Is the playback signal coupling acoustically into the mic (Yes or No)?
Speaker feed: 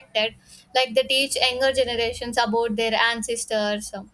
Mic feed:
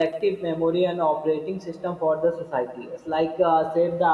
No